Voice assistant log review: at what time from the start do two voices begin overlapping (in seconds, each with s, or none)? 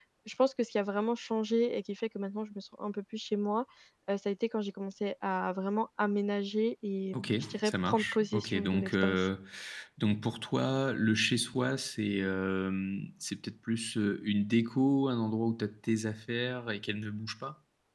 7.1 s